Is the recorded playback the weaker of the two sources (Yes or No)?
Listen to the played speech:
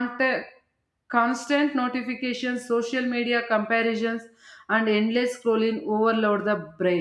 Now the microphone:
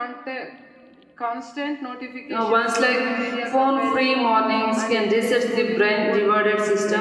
Yes